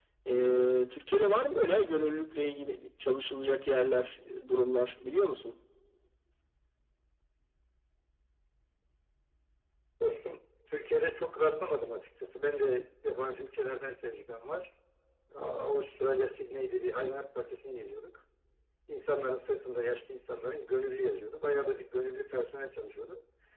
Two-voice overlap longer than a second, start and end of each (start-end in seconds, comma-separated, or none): none